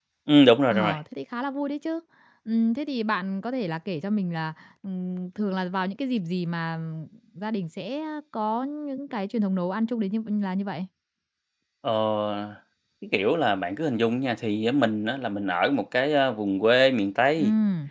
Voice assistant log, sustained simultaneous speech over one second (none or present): none